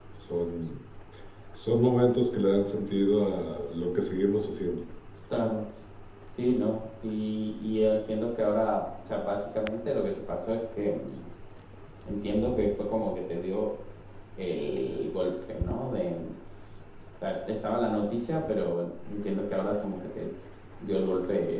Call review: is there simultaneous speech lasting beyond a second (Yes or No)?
No